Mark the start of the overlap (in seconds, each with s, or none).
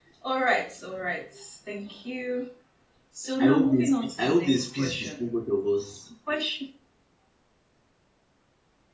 3.4 s